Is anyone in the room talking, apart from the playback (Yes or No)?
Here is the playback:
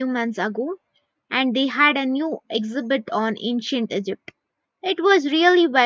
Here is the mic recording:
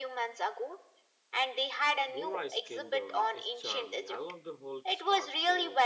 Yes